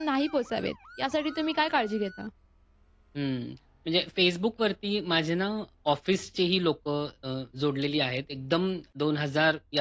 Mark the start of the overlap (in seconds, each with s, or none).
none